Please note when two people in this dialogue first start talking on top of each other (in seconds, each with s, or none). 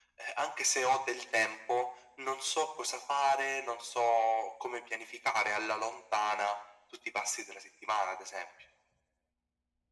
none